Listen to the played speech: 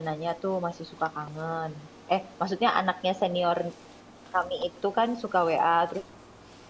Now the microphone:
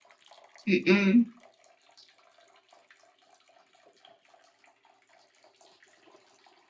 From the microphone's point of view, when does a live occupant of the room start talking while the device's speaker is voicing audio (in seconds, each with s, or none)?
0.7 s